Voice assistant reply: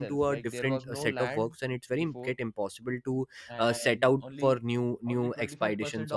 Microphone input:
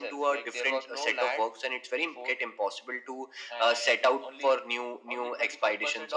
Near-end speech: none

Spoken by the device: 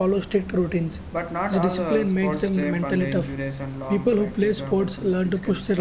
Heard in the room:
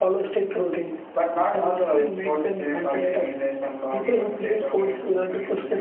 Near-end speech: present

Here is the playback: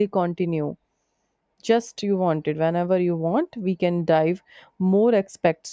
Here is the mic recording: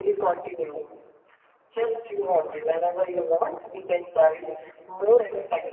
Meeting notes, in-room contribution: none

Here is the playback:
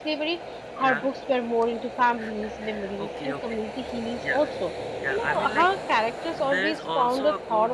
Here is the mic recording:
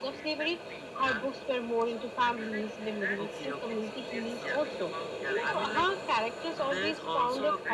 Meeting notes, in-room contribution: present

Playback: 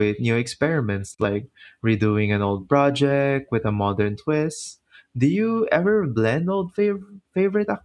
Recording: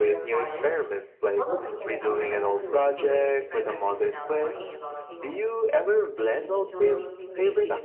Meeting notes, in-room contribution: present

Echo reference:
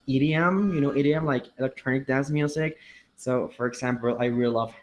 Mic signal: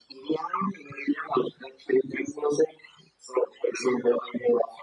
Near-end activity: none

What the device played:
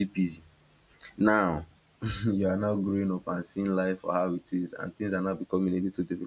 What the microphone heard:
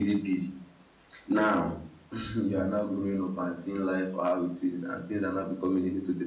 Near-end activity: none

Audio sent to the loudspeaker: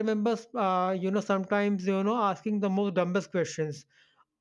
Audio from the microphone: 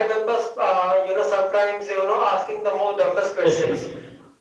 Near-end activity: present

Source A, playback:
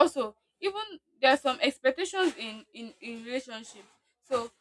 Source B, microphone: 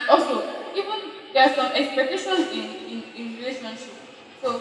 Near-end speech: none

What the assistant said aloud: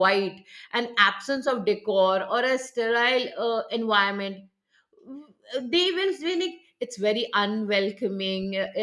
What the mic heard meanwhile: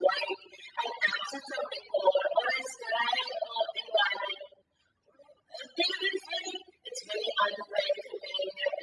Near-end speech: none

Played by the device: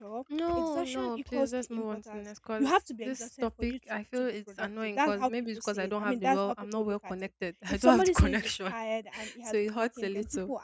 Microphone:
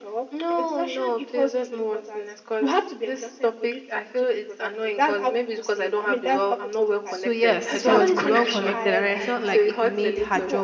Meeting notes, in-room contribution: present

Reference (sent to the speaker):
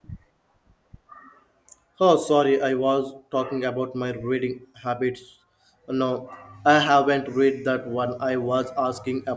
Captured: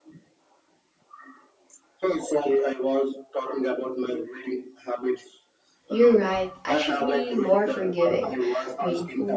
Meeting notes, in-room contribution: present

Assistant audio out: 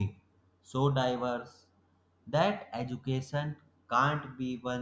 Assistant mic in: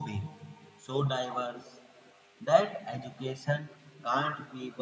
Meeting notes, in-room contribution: none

